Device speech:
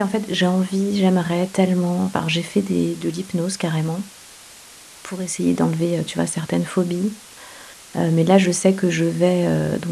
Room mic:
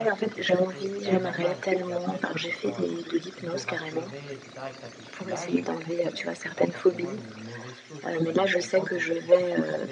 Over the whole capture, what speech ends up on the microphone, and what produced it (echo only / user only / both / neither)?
both